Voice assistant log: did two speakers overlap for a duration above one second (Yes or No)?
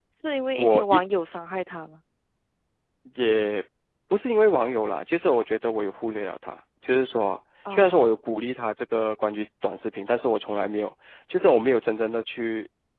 No